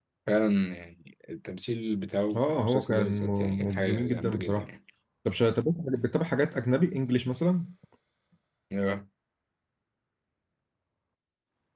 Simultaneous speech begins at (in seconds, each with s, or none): 2.3 s